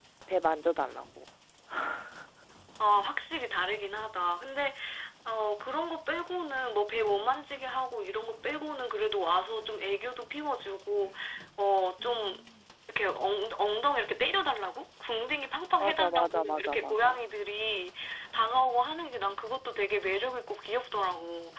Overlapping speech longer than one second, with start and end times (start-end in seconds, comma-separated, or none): 15.8-17.2